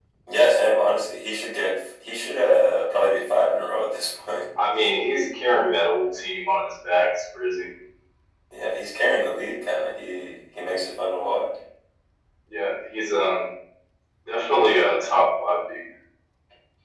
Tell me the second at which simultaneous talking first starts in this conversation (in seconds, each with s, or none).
none